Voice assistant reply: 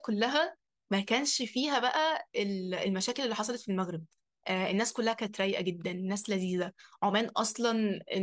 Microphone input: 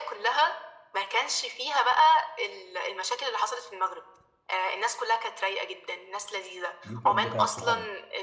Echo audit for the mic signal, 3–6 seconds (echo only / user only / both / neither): echo only